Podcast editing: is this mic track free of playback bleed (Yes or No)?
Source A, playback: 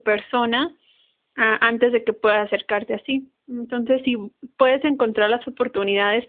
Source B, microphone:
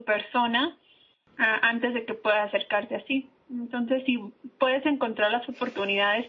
No